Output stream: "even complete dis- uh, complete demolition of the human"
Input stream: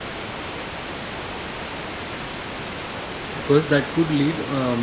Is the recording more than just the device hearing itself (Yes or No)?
Yes